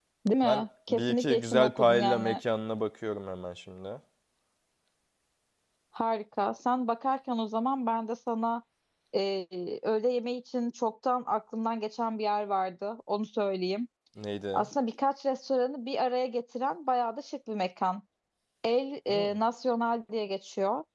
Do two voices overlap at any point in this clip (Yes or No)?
Yes